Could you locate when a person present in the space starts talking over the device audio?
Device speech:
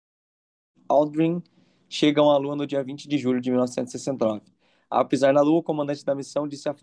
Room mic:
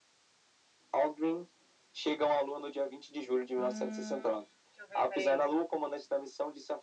4 s

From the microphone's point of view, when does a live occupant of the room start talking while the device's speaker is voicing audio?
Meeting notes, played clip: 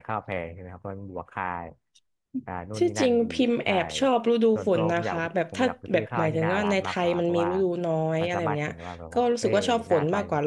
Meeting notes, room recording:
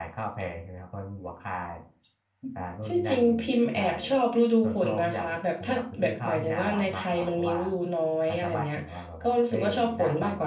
none

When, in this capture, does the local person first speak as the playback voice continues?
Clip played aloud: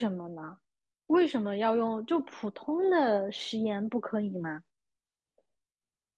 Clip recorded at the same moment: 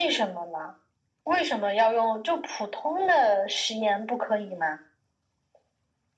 none

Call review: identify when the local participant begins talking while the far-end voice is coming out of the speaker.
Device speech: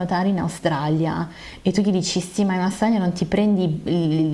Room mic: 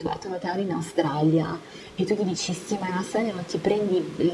none

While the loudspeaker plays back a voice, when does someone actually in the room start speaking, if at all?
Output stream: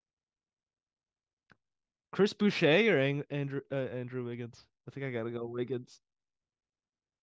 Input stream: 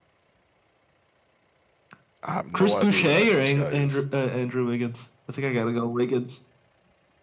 2 s

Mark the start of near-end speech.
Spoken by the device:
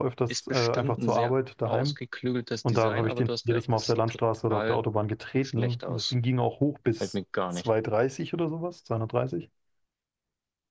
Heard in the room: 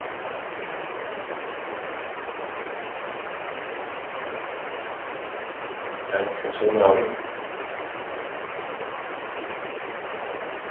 6 s

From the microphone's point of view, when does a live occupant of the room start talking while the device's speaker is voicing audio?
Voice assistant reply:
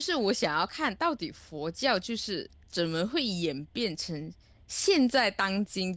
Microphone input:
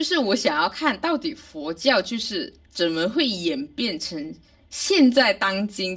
none

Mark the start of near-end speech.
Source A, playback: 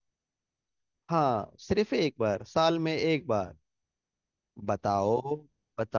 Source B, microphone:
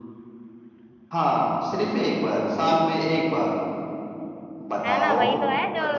5 s

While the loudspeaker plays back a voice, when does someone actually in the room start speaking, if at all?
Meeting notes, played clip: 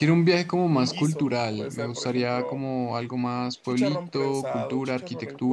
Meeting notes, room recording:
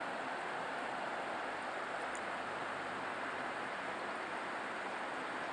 none

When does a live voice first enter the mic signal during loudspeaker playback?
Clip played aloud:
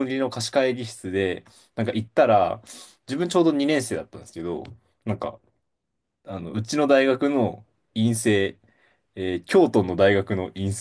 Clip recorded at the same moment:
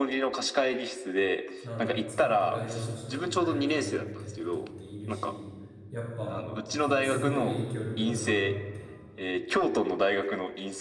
2 s

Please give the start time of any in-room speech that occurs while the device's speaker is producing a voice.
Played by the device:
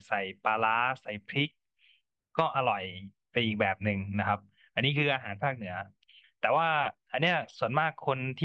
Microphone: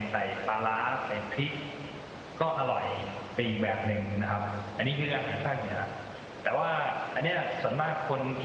none

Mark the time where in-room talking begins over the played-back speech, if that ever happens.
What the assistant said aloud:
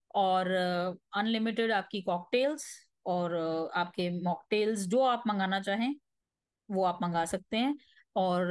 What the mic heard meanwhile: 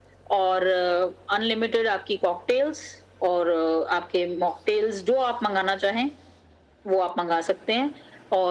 none

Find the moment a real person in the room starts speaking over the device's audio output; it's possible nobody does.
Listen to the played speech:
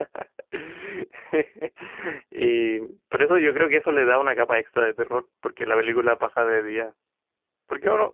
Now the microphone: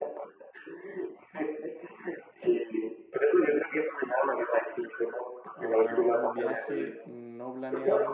6 s

